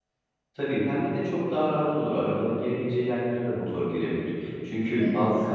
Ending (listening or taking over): listening